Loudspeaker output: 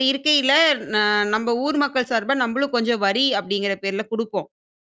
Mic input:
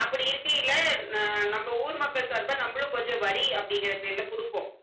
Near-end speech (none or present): none